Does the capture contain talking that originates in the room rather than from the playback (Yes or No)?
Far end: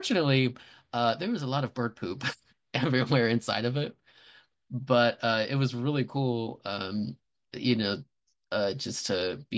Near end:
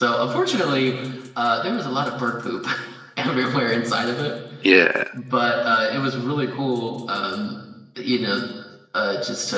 Yes